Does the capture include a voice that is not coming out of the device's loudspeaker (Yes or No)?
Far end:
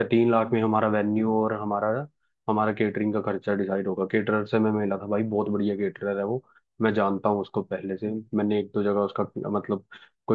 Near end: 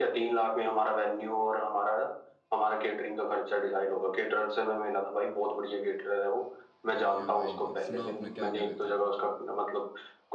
Yes